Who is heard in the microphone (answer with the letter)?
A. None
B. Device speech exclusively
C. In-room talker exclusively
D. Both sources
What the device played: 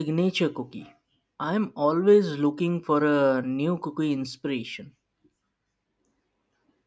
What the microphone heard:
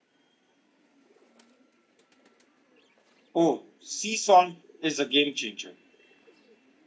C